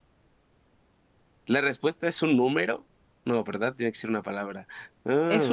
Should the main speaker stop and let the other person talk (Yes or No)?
Yes